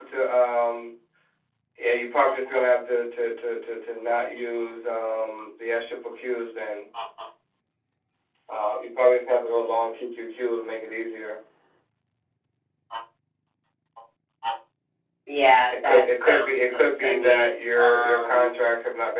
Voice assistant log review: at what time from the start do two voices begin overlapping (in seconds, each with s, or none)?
15.8 s